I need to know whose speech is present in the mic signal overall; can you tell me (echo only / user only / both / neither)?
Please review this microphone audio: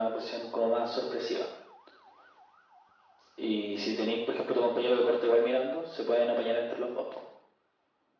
echo only